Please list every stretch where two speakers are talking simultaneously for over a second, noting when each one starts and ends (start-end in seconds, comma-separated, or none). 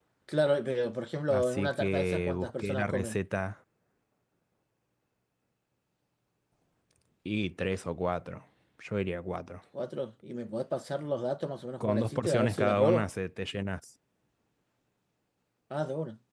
1.3-3.2, 11.9-13.1